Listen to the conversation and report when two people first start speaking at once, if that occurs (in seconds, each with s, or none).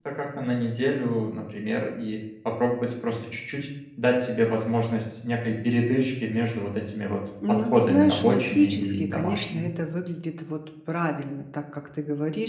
7.4 s